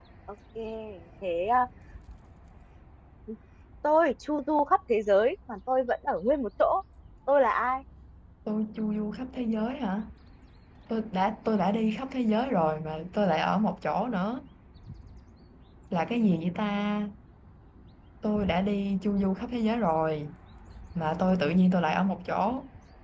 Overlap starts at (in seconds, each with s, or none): none